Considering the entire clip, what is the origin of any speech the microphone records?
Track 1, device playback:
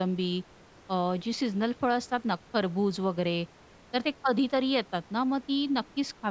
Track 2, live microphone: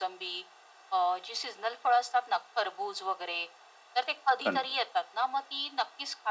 both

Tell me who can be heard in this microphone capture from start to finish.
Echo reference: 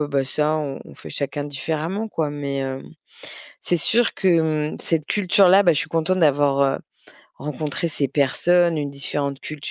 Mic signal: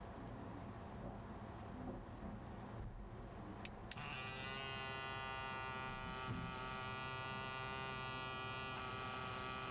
neither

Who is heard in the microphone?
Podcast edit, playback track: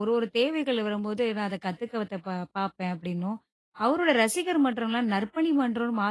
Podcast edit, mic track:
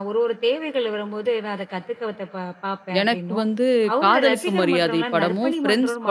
both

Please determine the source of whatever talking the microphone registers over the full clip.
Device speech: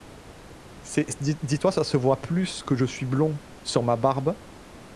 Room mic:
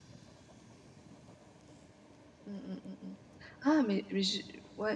user only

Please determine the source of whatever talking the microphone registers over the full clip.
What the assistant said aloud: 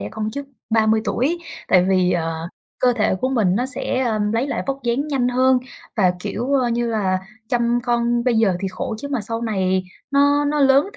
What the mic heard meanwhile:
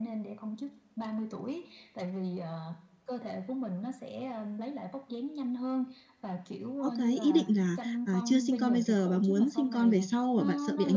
both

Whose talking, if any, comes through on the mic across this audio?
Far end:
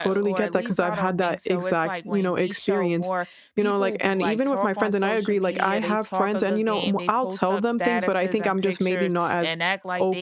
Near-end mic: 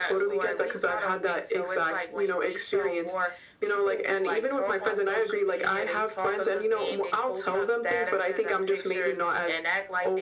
echo only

